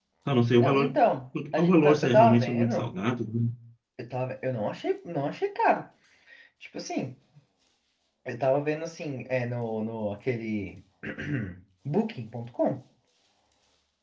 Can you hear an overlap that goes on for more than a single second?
Yes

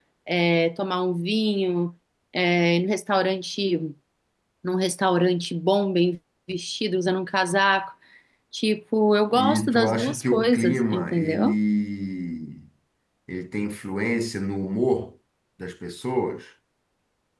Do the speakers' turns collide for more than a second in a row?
Yes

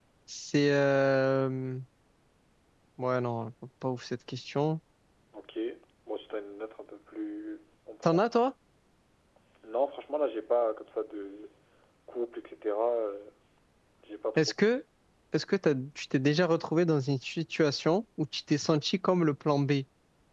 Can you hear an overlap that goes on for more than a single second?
No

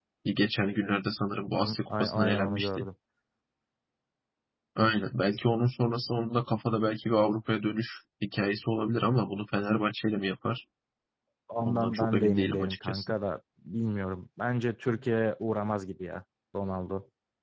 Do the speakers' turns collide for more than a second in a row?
Yes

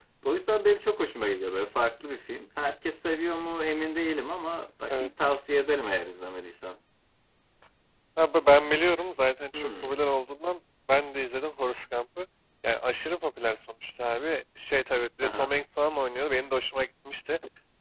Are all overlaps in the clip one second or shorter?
Yes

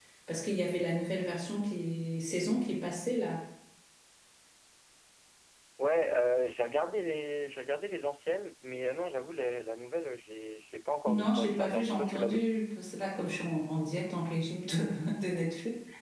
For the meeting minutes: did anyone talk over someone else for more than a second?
Yes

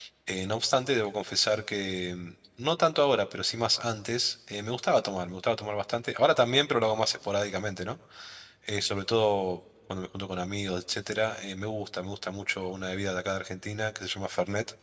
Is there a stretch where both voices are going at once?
No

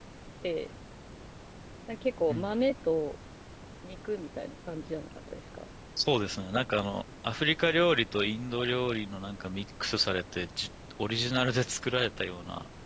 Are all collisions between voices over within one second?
Yes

